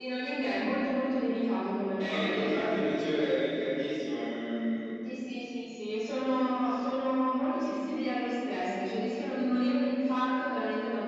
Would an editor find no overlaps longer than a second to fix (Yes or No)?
Yes